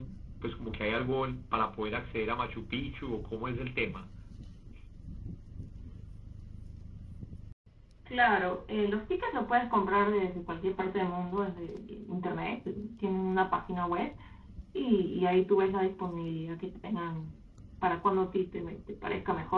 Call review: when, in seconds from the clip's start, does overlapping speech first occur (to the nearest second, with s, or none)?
none